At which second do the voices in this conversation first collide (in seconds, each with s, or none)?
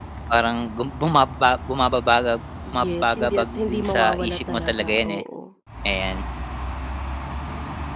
2.7 s